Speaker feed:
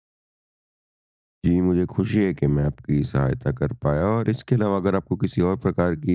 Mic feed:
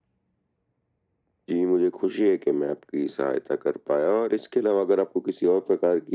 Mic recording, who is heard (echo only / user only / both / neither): echo only